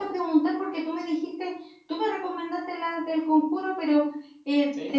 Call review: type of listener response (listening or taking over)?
listening